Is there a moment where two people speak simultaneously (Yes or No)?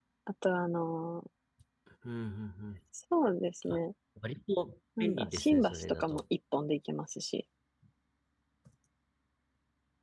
Yes